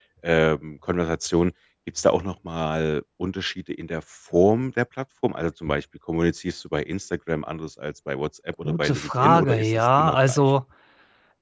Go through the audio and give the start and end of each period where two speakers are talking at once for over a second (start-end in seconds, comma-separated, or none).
8.6-10.5